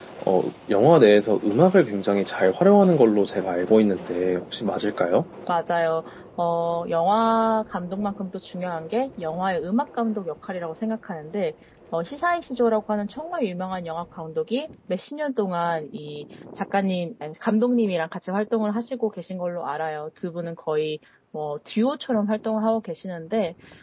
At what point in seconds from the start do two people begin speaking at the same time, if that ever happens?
none

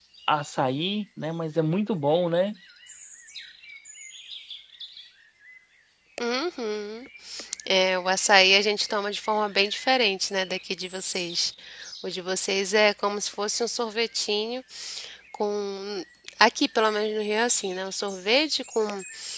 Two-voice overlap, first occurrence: none

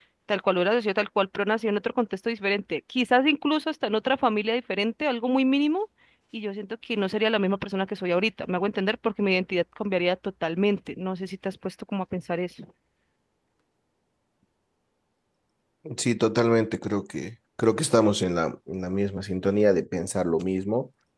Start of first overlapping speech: none

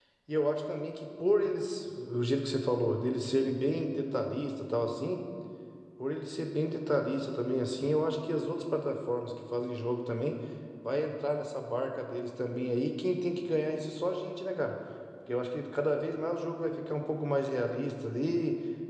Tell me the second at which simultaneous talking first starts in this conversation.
none

